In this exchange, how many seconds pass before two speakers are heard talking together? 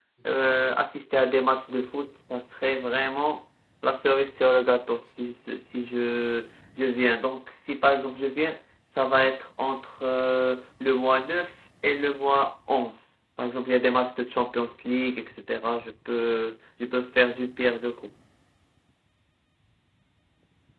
none

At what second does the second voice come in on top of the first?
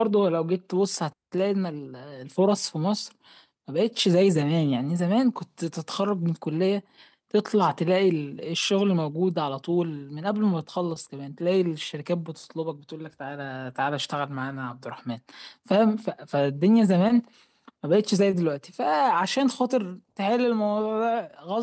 none

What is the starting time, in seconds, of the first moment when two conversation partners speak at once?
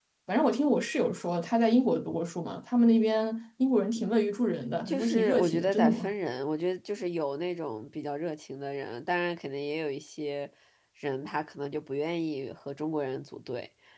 5 s

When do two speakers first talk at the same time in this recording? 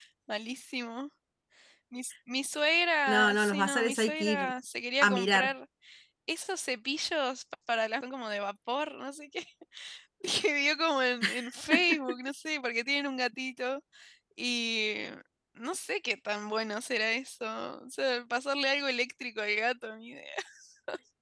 3 s

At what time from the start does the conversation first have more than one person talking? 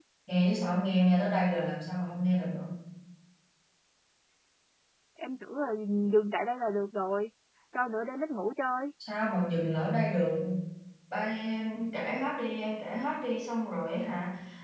none

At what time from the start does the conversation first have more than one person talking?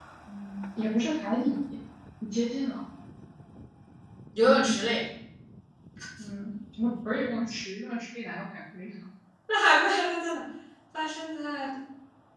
none

